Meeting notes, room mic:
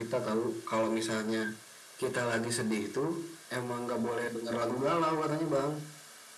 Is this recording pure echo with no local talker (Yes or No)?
Yes